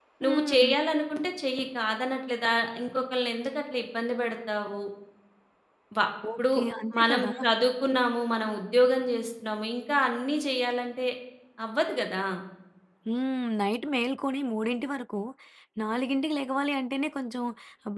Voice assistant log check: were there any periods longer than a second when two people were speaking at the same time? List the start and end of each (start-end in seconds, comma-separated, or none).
none